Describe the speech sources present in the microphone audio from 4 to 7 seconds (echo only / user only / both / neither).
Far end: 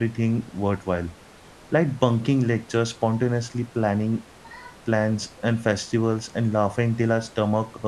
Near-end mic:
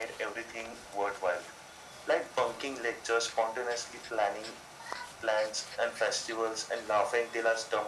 echo only